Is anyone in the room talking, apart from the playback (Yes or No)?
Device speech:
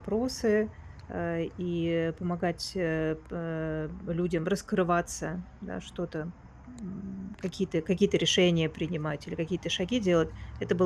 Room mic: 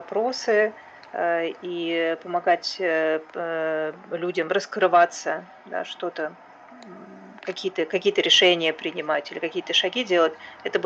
No